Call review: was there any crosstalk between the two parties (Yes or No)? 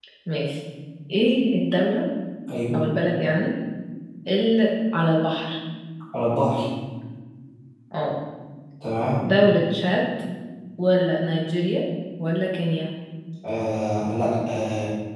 No